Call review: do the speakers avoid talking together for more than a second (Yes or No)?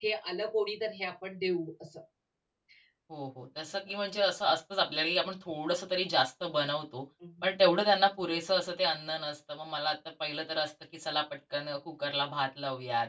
Yes